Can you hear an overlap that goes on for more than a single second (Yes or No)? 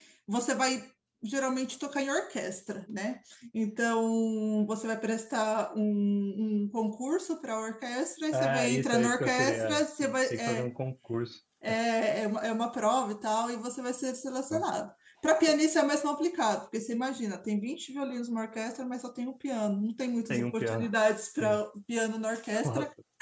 Yes